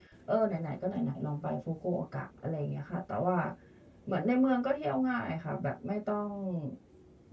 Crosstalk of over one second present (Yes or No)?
No